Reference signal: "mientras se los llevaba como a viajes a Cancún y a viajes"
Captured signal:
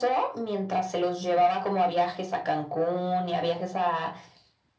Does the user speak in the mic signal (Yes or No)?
No